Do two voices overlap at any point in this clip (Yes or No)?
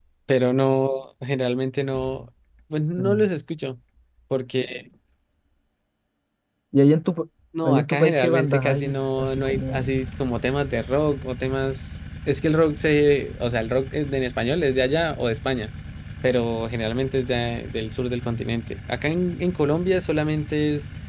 Yes